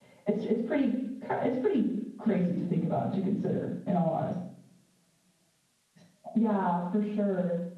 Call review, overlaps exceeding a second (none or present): none